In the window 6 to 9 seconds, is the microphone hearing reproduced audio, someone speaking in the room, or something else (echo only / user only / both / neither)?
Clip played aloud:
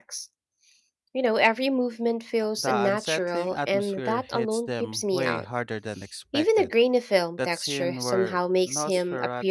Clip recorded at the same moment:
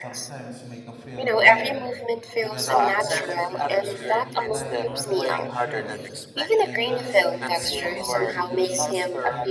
both